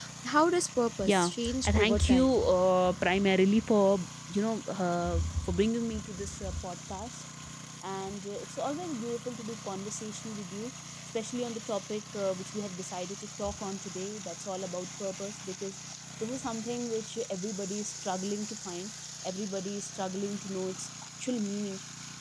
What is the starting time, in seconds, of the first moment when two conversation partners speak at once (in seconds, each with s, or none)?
1.0 s